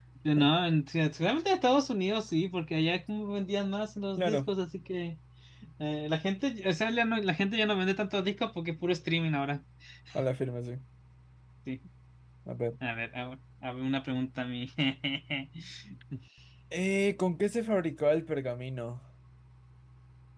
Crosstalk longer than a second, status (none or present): none